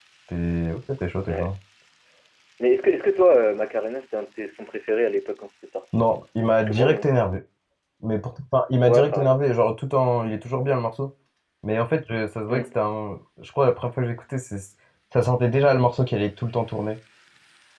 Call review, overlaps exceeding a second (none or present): none